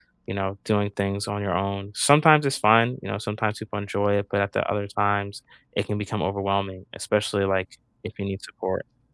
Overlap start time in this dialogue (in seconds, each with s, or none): none